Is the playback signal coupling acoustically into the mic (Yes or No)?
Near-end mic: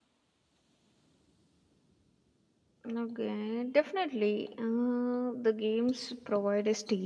No